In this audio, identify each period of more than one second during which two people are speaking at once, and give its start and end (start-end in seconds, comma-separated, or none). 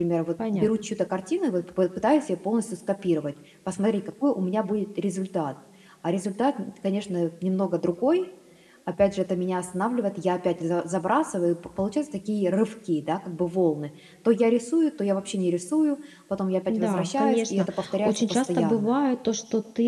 16.7-18.9